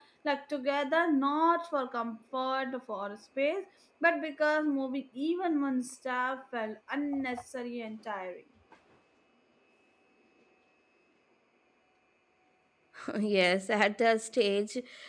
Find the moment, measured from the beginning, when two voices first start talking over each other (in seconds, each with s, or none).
none